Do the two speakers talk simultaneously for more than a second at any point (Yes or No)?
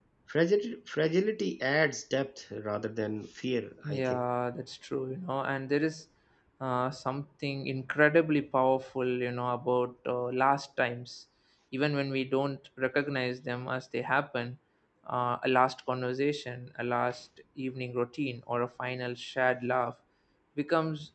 No